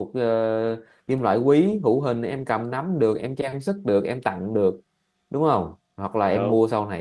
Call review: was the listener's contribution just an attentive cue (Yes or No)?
Yes